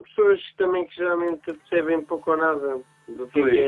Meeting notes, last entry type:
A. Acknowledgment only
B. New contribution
A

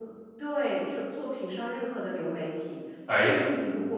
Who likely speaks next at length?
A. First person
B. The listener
A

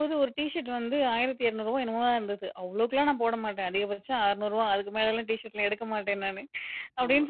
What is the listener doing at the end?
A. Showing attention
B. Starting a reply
A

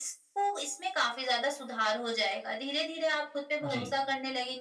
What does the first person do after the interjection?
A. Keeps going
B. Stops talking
A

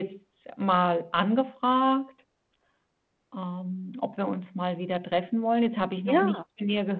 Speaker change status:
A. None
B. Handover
A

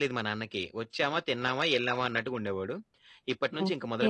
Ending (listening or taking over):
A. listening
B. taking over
A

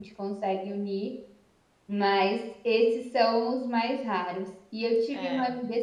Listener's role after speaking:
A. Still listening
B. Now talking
A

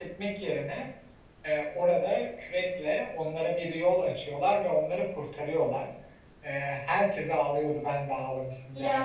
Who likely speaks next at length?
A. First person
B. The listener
A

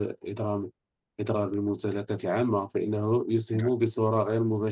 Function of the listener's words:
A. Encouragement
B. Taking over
A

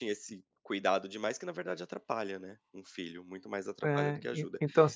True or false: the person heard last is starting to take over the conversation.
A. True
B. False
A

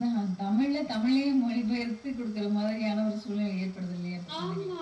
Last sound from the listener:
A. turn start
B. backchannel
A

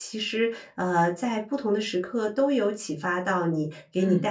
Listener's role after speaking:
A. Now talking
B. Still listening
B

